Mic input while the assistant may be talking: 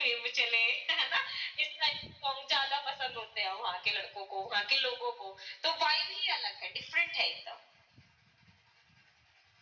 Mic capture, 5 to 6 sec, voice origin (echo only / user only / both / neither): echo only